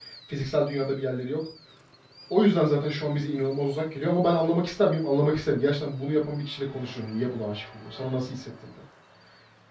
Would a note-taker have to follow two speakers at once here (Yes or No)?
No